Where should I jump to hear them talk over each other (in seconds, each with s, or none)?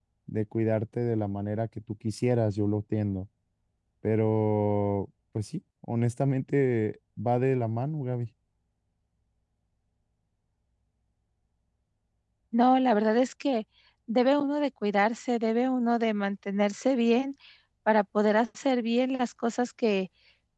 none